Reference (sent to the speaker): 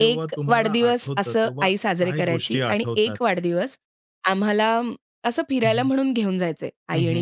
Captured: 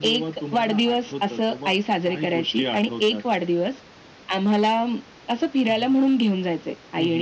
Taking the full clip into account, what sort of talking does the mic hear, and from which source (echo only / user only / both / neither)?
echo only